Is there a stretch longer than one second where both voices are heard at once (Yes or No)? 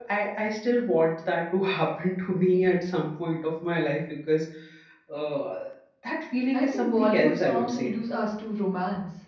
Yes